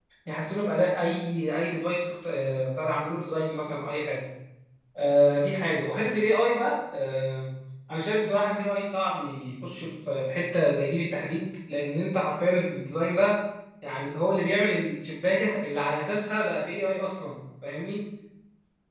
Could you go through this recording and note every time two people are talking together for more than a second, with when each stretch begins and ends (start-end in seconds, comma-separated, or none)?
none